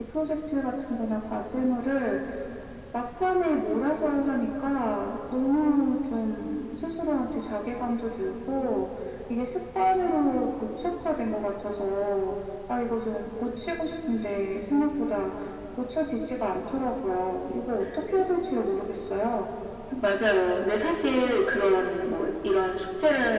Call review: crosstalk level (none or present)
none